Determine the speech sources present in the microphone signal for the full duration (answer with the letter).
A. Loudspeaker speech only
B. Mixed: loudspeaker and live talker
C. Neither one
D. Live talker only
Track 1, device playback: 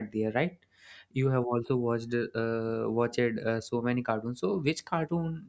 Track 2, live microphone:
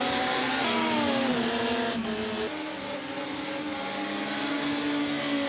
C